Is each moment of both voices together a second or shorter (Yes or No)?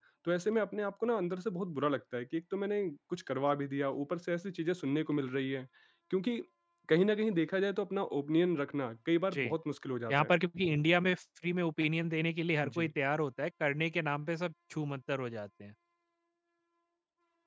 Yes